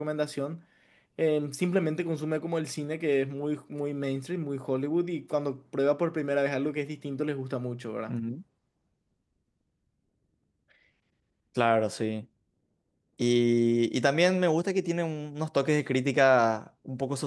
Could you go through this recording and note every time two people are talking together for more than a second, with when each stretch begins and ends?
none

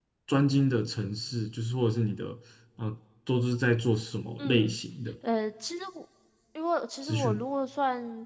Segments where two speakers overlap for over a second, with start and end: none

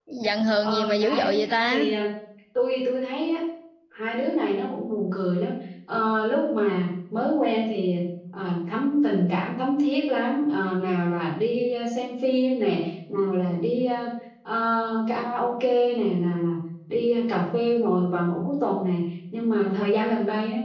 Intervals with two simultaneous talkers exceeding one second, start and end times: 0.6-1.9

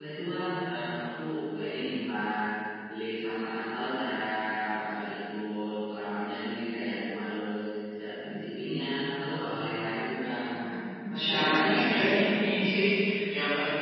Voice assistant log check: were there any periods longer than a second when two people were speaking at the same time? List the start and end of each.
11.1-12.7

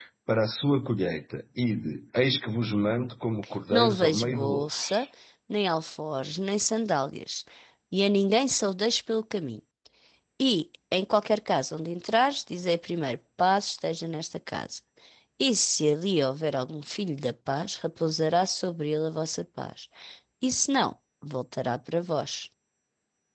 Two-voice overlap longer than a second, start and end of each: 3.7-5.1

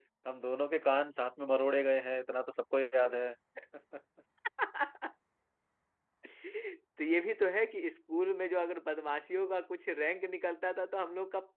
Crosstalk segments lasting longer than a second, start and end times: none

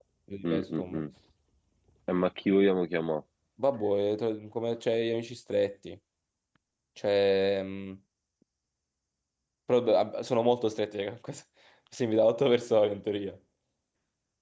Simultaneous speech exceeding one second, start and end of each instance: none

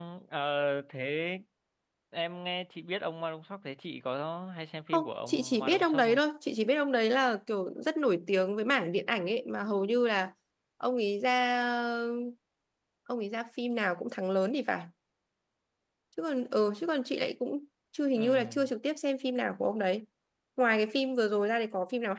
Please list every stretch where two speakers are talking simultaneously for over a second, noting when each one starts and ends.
4.9-6.2

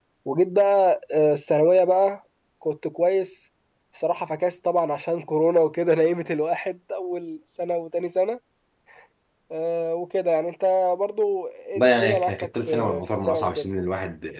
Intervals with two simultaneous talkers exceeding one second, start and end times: 11.8-13.7

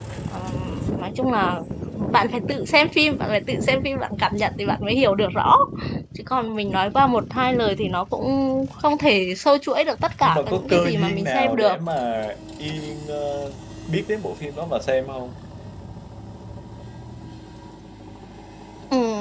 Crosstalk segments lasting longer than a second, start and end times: 10.2-11.8

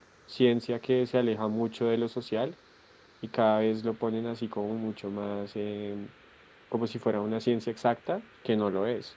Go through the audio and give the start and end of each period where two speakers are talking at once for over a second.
none

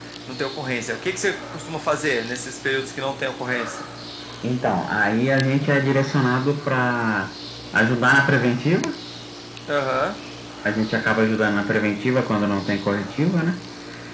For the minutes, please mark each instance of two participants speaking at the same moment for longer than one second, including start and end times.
none

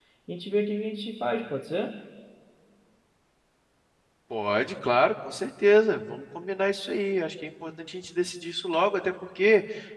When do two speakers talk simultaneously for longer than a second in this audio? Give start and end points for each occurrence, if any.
none

